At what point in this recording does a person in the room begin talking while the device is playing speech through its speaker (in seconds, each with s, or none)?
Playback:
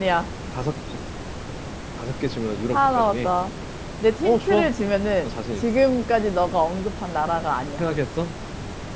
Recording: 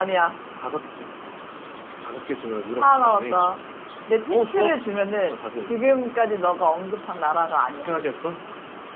none